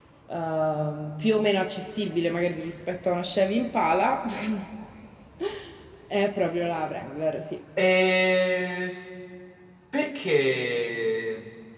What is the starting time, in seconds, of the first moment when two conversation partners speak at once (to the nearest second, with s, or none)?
none